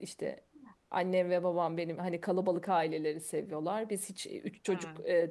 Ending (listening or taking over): listening